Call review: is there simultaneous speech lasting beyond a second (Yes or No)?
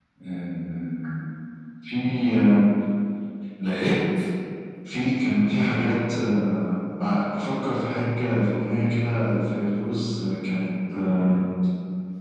No